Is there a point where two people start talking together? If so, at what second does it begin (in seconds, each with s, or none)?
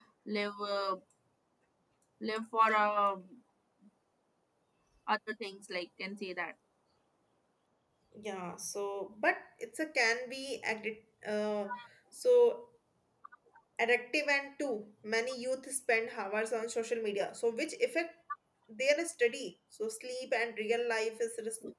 none